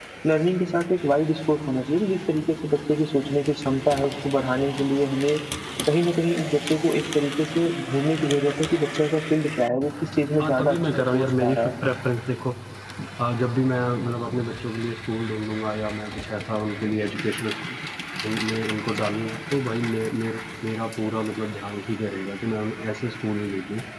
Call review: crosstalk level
present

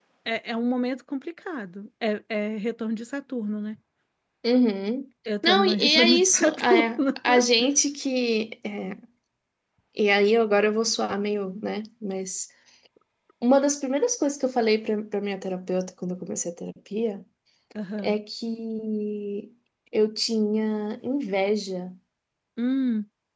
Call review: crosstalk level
present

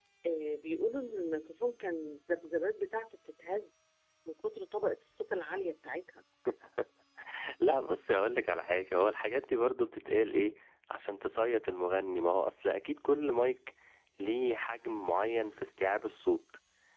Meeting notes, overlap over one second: none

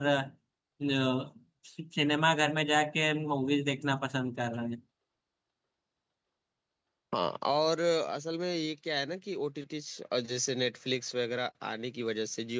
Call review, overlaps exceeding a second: none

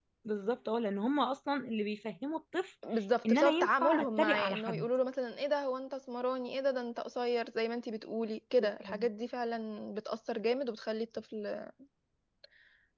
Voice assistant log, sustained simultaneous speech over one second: present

